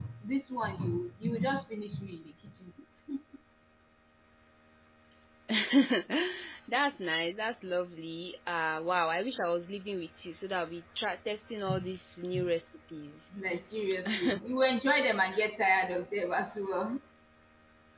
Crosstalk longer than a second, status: none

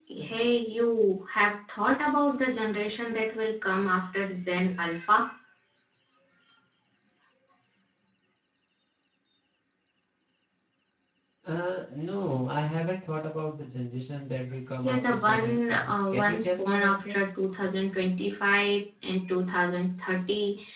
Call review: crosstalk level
present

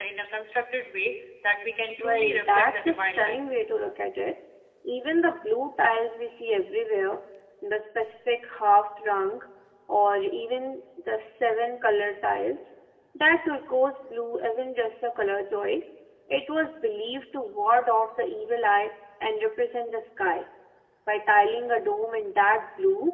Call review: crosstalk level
present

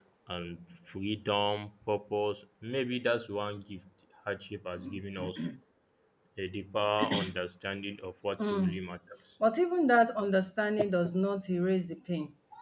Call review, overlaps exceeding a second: none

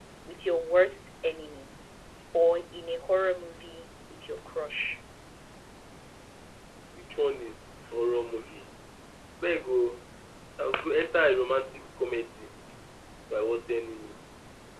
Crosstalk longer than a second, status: none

